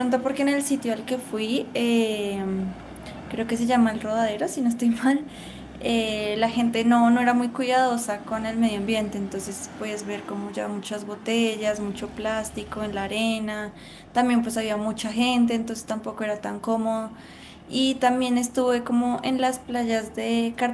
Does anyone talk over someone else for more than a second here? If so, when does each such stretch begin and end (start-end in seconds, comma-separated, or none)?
none